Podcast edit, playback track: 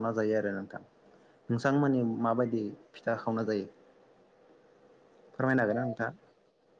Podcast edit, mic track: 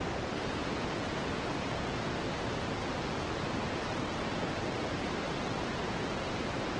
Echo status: none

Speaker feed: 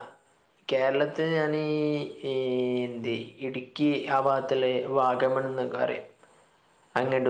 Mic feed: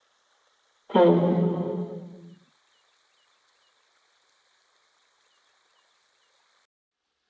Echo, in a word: none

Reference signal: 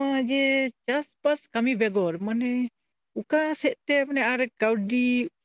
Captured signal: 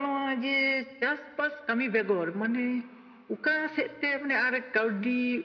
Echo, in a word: present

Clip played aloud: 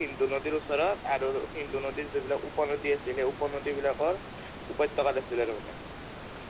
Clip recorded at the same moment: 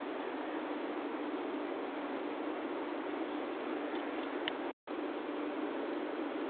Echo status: none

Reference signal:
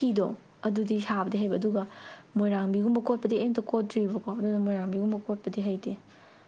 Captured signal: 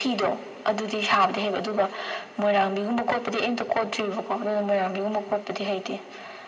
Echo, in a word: present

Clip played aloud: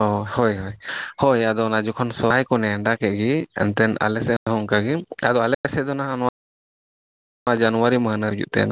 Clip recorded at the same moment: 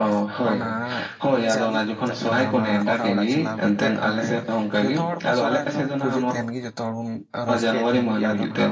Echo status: present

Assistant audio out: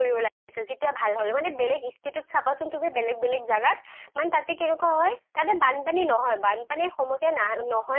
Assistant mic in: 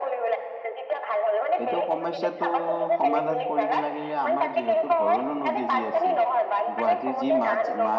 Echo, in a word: present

